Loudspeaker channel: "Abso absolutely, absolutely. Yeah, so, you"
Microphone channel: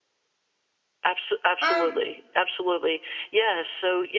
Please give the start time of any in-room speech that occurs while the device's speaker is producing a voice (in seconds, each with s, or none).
1.6 s